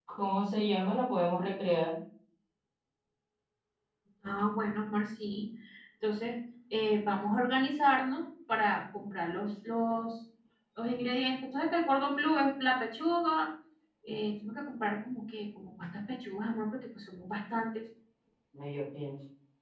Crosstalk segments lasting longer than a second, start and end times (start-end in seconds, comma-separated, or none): none